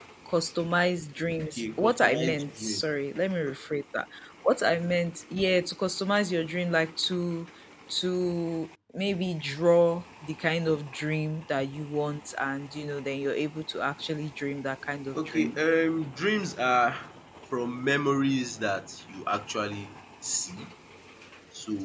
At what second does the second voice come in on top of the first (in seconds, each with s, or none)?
1.5 s